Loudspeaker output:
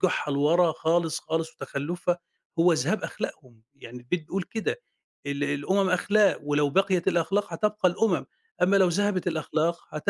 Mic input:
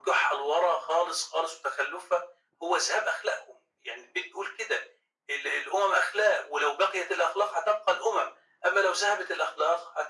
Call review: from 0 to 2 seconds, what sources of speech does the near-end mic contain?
echo only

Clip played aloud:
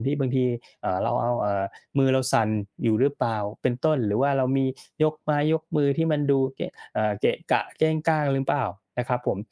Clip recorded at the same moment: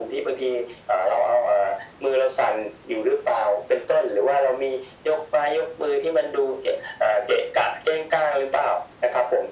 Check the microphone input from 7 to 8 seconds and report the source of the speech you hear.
echo only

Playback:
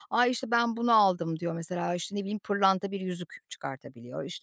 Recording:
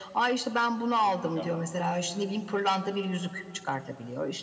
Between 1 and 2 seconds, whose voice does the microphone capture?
both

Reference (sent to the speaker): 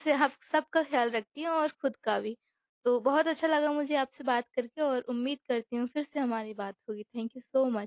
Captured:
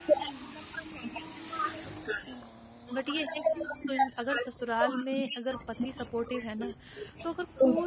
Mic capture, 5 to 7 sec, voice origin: both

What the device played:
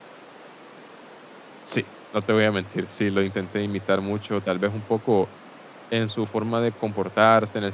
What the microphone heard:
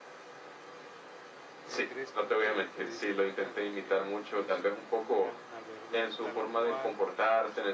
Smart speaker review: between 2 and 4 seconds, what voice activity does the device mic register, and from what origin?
both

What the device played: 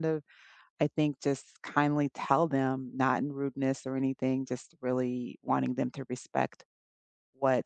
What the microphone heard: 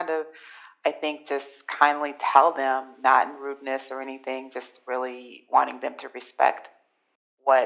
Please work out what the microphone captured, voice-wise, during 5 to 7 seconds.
echo only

